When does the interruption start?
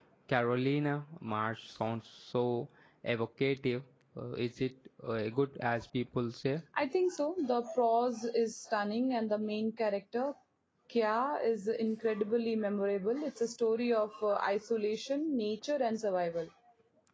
none

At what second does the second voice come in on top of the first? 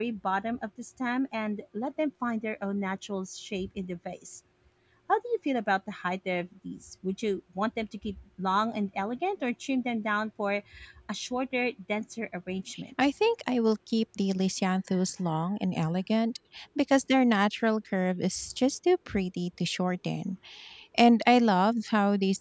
none

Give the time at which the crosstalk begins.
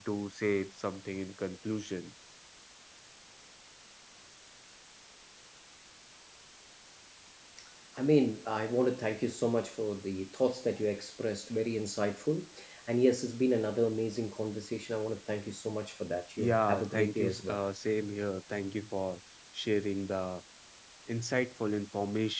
16.4 s

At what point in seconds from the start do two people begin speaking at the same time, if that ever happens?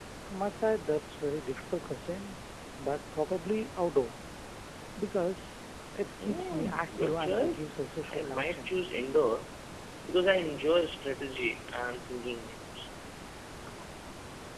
6.2 s

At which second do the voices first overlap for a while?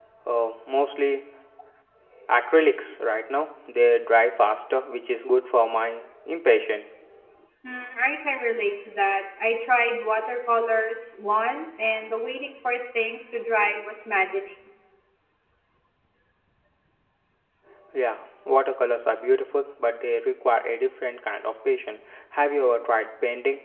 none

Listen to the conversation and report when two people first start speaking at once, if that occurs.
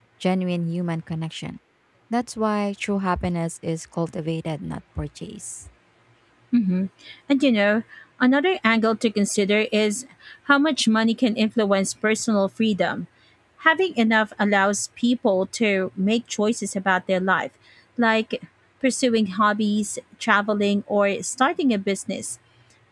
none

